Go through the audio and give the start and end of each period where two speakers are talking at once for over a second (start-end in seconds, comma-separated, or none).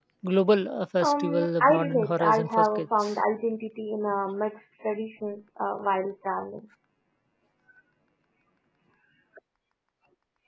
1.0-3.2